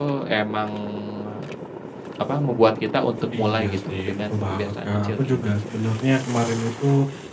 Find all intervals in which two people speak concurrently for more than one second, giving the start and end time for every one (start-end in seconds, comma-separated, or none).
3.4-5.7